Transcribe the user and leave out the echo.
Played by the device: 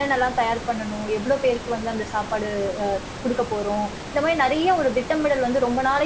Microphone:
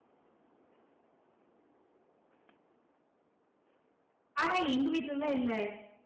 ஆனா, எங்க வீட்லலாம் இல்ல.

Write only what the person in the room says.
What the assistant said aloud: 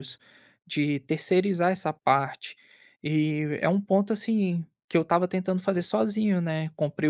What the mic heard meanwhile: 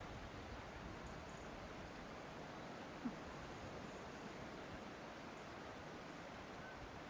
none

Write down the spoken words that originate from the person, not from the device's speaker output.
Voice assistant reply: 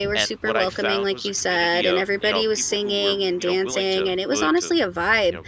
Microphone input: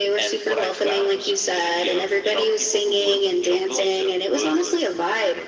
none

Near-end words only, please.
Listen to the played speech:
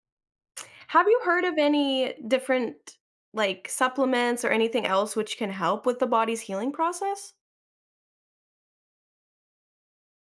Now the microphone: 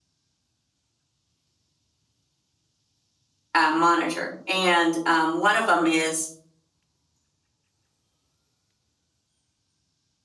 uh, monitor. And um, one of them is

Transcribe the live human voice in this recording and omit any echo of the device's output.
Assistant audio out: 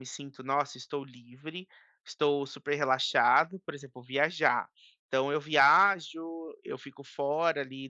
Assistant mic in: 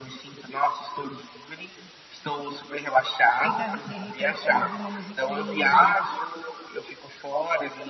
Tenta re de repente você ouvir uma musiquinha,

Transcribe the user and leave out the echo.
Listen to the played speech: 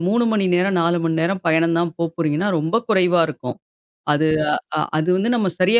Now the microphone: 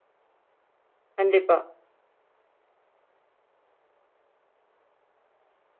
கண்டிப்பா.

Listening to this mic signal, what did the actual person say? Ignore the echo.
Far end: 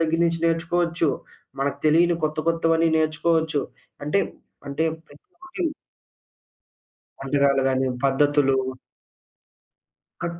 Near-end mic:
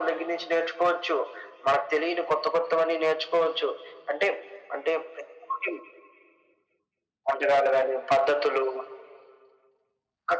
none

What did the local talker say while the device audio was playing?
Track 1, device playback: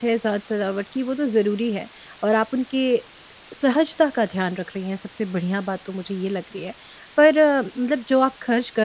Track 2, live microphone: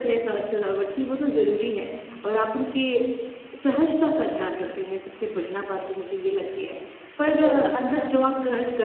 अ, थोड़ा-सा अच्छा खरीद लो

